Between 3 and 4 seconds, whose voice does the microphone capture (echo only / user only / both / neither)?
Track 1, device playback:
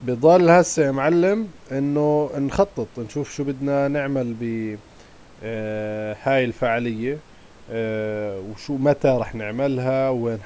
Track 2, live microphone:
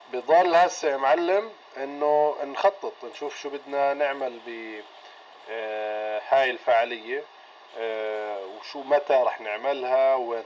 echo only